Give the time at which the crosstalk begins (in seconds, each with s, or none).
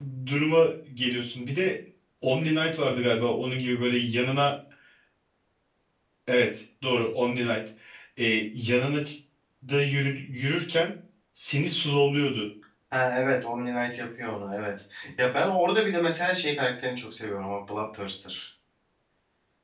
none